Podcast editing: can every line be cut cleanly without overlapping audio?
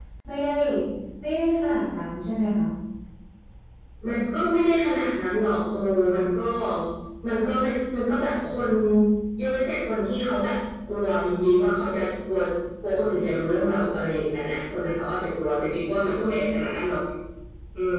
Yes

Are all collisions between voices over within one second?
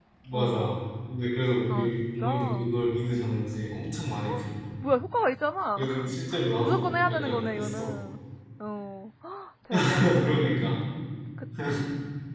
No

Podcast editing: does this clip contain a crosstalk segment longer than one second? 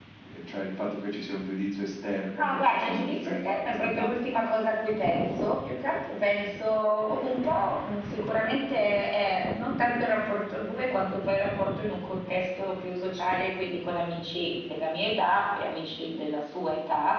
Yes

